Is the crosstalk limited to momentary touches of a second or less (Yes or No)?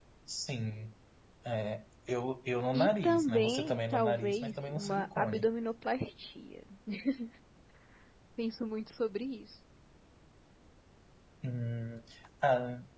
No